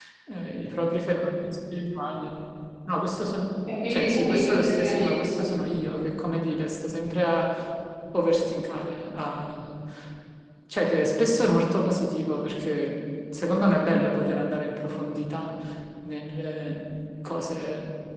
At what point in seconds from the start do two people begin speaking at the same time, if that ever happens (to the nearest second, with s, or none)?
4 s